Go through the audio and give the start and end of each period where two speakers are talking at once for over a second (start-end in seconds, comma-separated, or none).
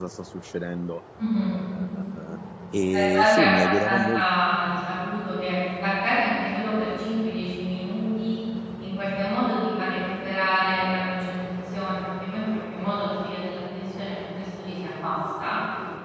2.9-4.2